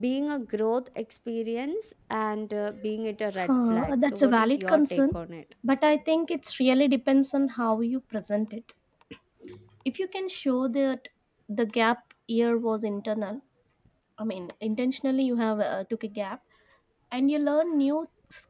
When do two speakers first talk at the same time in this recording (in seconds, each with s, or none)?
3.4 s